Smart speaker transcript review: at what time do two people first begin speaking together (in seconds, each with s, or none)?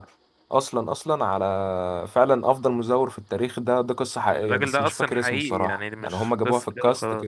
4.3 s